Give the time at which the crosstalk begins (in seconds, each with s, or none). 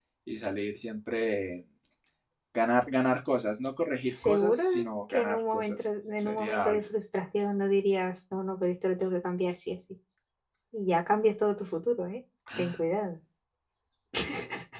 4.1 s